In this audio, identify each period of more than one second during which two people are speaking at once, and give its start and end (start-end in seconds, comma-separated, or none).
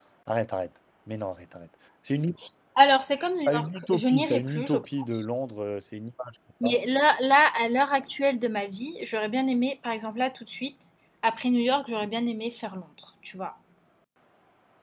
3.5-4.9